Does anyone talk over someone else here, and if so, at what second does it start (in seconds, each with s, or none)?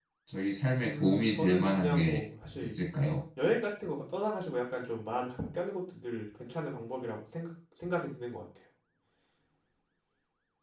0.8 s